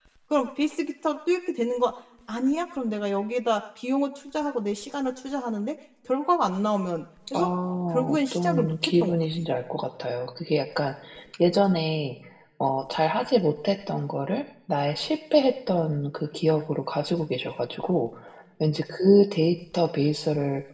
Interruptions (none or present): present